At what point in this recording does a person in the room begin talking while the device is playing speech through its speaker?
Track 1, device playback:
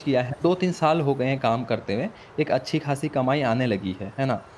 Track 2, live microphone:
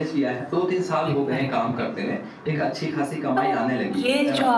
1.1 s

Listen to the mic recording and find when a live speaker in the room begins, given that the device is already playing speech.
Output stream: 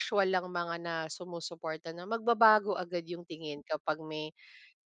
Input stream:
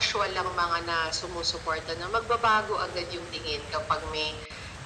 none

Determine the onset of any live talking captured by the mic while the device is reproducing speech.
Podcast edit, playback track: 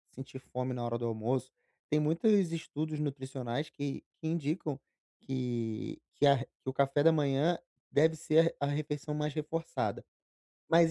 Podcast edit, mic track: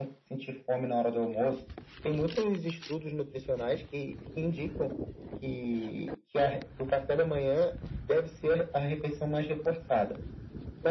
none

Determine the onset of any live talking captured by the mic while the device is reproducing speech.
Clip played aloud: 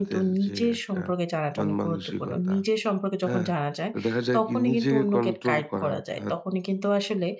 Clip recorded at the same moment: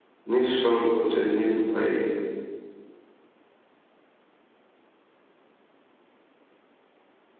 0.3 s

